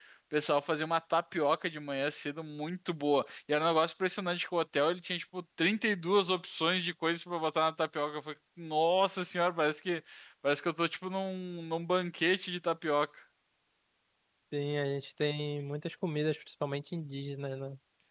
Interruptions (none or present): none